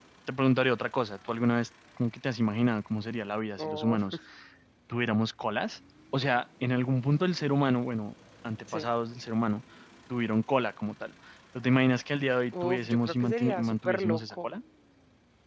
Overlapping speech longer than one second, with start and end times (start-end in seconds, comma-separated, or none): 12.6-14.5